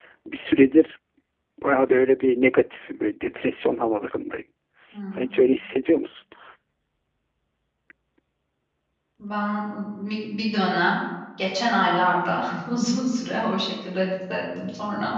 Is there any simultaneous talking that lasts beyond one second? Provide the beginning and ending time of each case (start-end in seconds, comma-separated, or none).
none